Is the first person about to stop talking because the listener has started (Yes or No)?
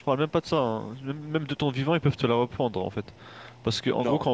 No